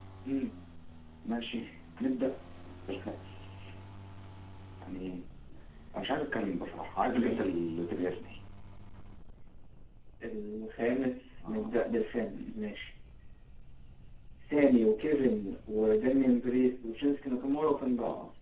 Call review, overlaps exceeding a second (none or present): none